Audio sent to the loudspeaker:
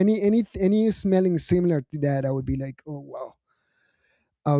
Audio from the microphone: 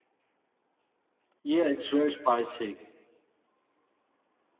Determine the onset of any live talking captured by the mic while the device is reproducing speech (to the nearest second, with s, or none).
1 s